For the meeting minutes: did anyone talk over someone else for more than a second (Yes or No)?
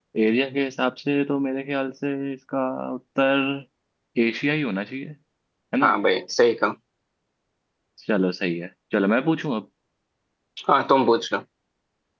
No